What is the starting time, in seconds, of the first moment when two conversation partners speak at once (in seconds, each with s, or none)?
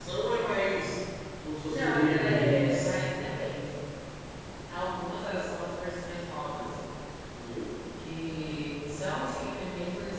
1.7 s